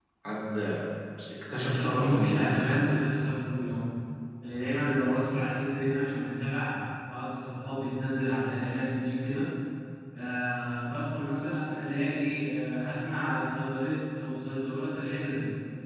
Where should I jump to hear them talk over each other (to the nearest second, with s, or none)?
2 s